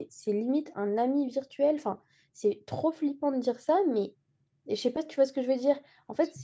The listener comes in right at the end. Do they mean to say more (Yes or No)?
No